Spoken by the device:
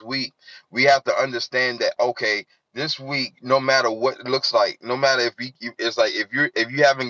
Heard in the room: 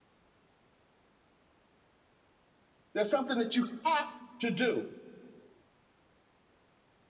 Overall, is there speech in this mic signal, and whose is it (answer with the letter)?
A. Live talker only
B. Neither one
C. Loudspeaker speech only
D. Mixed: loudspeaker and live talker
A